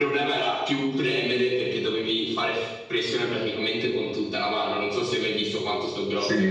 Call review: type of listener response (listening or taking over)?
taking over